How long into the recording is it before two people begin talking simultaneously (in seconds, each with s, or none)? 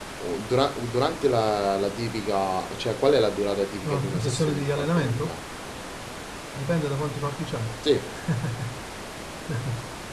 3.9 s